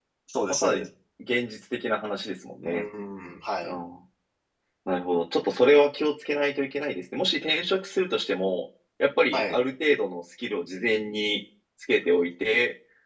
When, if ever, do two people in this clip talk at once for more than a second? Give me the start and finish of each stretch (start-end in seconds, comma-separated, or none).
none